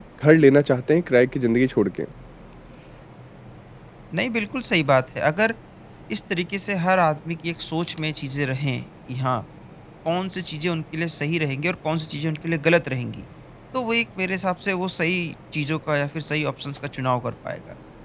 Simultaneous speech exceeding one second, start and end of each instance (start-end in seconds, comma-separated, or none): none